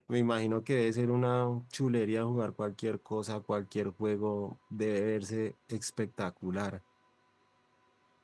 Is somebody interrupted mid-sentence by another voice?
No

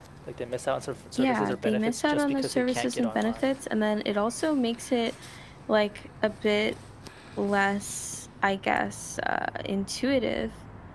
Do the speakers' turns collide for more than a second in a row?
Yes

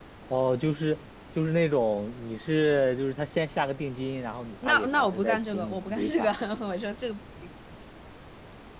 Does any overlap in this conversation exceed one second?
Yes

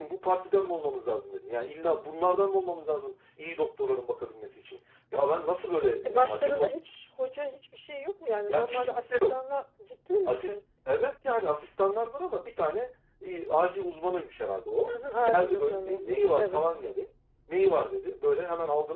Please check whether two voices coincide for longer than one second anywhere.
Yes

